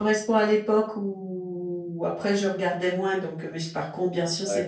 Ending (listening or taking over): listening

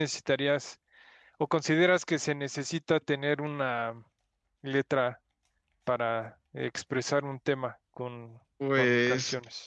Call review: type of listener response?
taking over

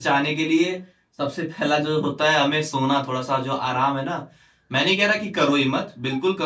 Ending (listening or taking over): listening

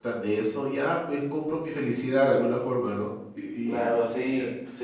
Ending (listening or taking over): taking over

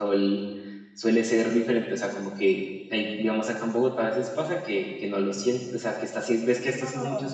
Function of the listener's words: listening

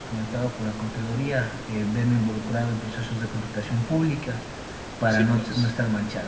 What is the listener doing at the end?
listening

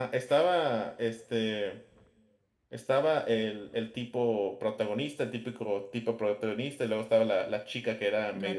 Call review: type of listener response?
listening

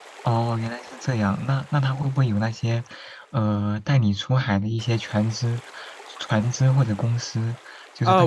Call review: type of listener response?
taking over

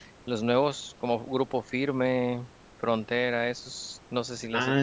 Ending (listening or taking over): taking over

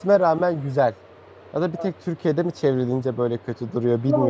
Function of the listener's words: taking over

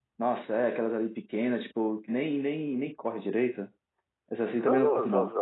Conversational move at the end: taking over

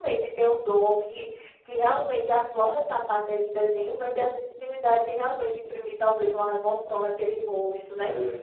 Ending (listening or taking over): listening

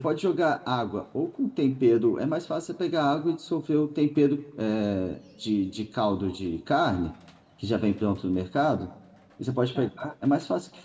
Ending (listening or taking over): listening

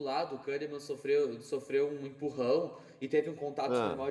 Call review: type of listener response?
listening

